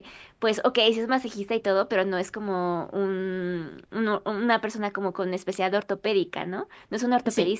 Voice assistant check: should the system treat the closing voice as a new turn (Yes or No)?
No